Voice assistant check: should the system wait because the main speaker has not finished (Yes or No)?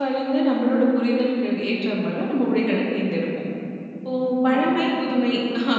Yes